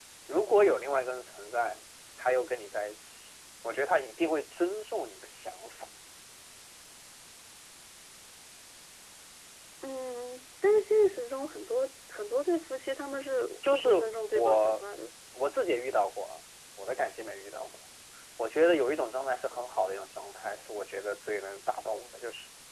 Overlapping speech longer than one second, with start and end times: none

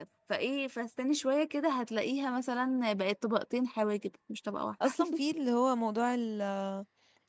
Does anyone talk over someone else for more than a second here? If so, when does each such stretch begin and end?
none

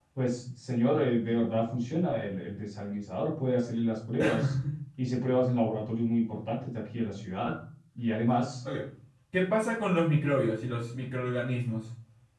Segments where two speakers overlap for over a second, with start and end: none

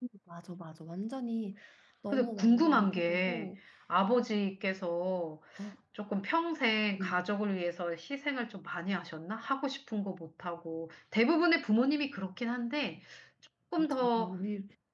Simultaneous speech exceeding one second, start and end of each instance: 2.1-3.5

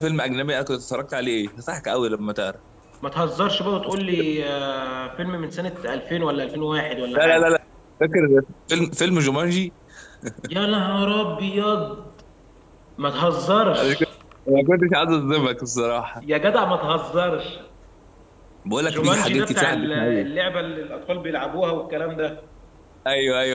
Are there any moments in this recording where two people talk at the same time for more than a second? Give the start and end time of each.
18.9-20.3

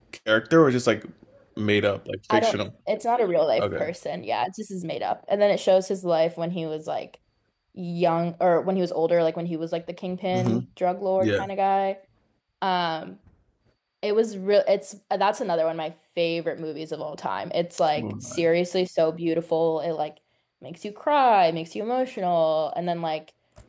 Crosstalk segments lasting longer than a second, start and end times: none

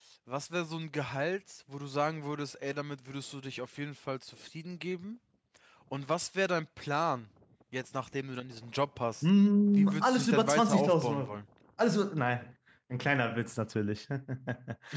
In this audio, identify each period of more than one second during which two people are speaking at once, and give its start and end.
9.8-11.4

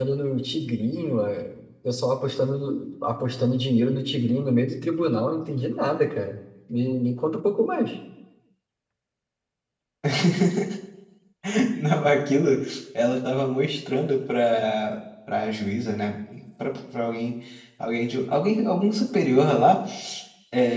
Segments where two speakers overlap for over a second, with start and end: none

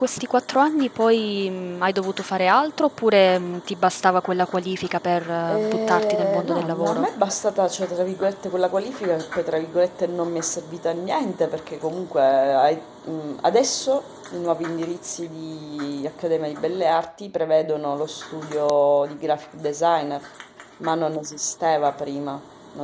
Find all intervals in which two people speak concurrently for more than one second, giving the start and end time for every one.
5.5-7.0

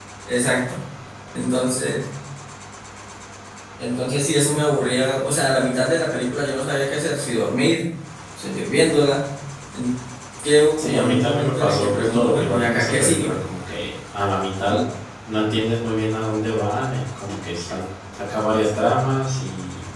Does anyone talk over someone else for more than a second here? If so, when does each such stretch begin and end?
10.8-13.3

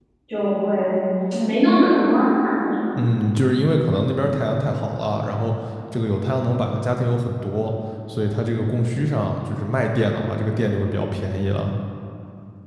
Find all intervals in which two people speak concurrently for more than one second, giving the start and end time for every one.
none

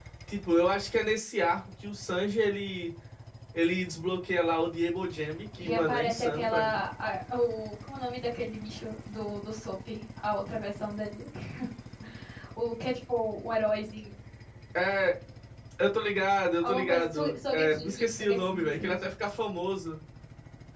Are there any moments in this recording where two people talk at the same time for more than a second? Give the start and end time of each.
5.6-6.8, 16.6-18.9

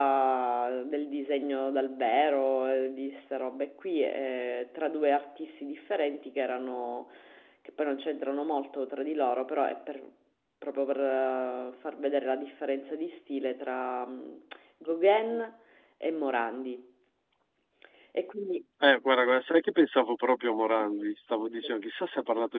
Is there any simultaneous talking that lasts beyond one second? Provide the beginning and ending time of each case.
none

